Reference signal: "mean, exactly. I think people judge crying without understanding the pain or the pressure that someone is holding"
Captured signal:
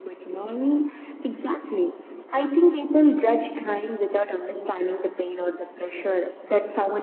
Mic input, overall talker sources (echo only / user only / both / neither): echo only